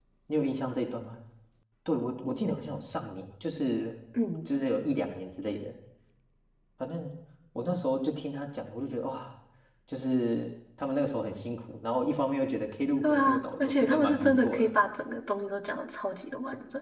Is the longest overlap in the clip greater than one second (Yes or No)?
Yes